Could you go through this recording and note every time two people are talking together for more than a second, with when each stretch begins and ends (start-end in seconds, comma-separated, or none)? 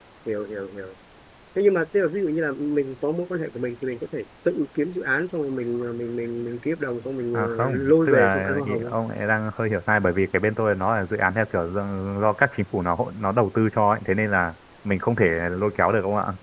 7.3-8.9